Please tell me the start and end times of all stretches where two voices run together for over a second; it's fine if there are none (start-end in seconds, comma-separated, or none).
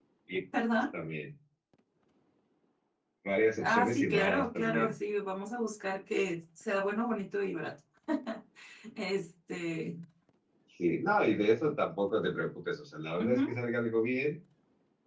3.6-4.9